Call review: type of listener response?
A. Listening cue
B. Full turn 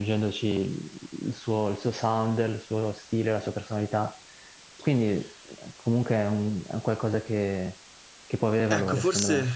B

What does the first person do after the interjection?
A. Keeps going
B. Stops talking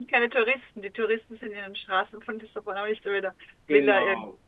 B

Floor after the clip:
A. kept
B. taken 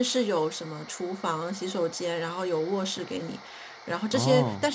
A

